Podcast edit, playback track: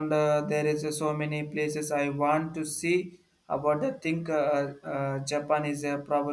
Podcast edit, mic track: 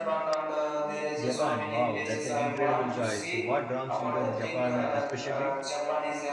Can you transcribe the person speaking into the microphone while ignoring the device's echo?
Japan. Wow, that's an incredible choice. What draws you to Japan, uh, especially?

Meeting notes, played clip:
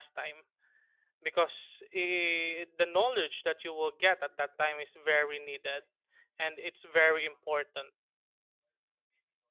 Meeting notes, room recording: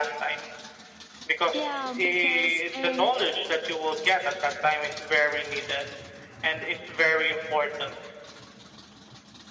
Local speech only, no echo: Yeah, because in

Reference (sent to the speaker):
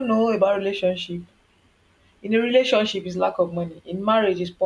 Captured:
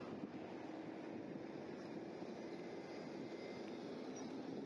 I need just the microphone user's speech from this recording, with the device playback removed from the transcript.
none

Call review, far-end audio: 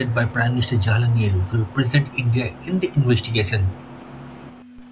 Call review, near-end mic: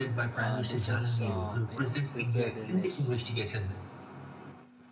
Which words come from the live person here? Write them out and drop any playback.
uh, defense uh, you know preparedness

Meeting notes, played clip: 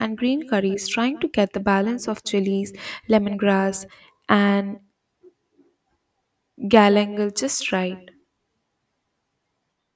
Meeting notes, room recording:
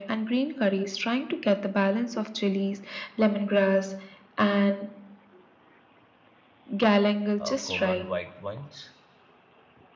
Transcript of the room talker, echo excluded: uh, common white wines,

